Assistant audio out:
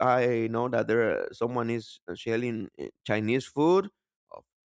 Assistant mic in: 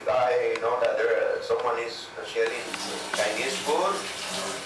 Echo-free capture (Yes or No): No